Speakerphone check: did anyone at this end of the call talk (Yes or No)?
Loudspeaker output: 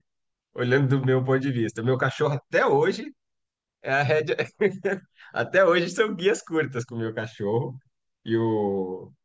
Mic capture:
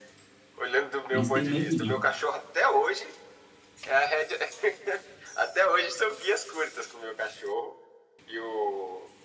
Yes